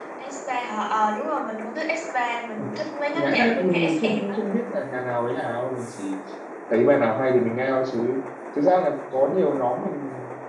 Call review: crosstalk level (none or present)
present